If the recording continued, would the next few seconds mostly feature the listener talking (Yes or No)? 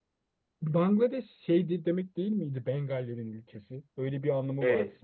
Yes